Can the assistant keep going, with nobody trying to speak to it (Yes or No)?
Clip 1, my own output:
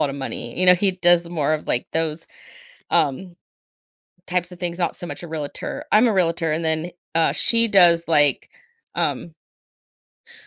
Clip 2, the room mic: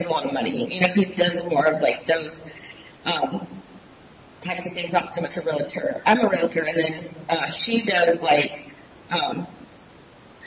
Yes